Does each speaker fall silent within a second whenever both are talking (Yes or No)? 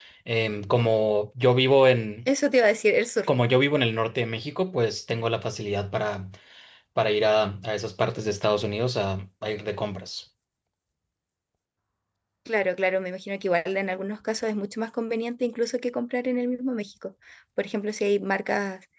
Yes